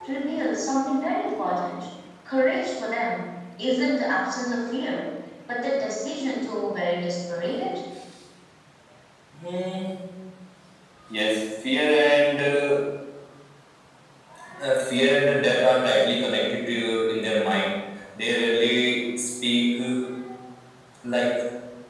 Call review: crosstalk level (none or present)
none